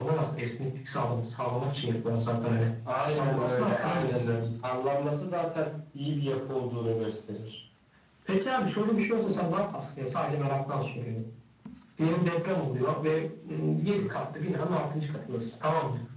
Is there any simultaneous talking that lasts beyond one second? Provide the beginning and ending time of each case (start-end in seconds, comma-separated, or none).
3.0-4.3